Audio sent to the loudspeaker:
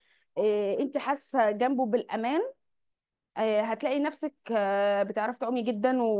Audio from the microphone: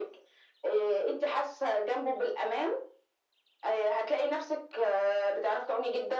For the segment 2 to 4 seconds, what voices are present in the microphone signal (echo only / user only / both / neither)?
echo only